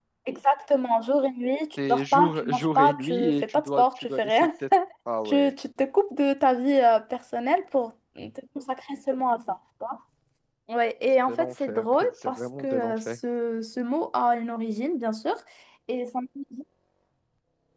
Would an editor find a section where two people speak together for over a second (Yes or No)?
Yes